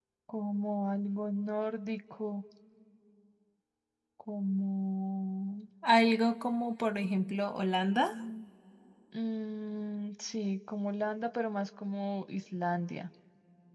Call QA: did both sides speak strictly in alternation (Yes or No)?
Yes